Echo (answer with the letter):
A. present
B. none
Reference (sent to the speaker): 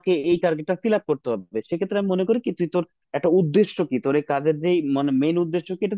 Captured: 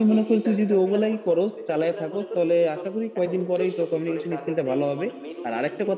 A